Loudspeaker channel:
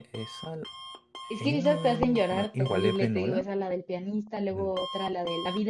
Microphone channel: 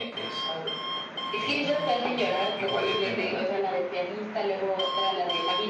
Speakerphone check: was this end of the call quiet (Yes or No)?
Yes